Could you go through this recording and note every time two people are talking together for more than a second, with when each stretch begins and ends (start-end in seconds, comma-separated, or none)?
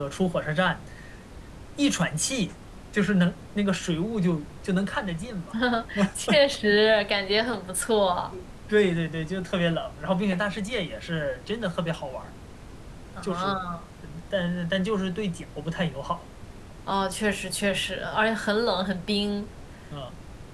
none